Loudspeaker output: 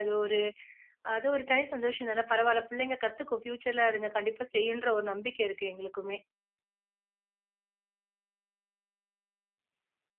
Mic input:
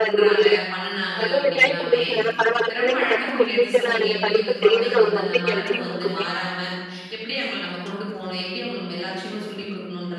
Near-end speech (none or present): present